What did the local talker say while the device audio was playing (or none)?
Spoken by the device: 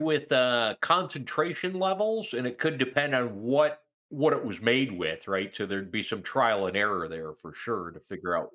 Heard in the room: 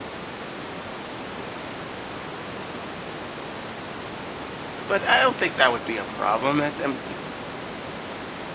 But I don't think that would be a problem. That um,